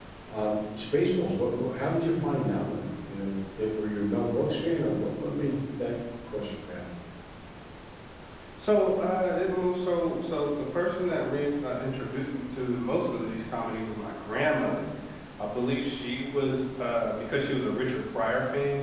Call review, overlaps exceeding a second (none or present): none